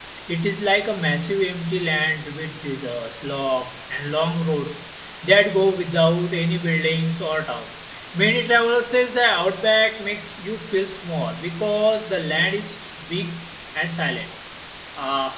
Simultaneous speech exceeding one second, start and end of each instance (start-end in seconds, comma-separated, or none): none